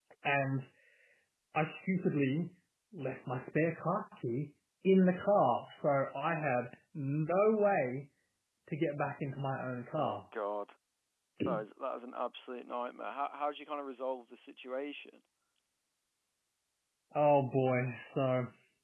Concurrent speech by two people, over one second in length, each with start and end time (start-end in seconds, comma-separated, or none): none